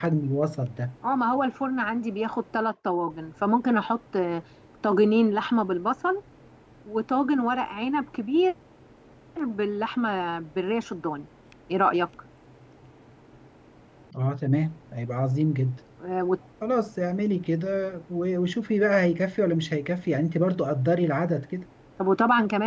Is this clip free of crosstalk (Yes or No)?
Yes